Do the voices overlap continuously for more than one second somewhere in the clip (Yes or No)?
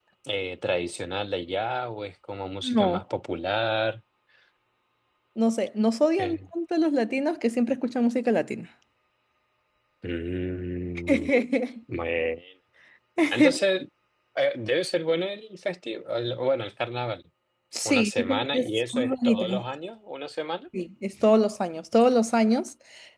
Yes